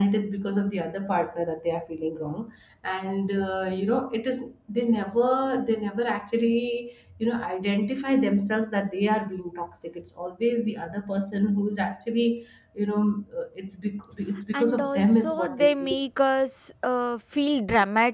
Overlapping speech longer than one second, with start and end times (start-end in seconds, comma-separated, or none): 14.5-16.0